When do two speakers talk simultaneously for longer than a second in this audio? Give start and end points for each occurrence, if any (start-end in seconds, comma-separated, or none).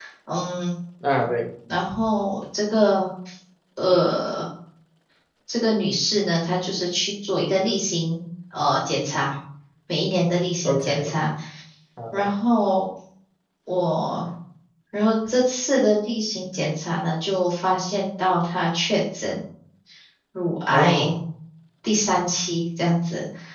none